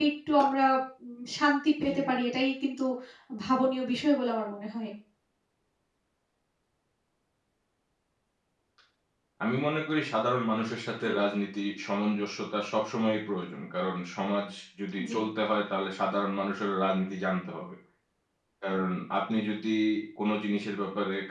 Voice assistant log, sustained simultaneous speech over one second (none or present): none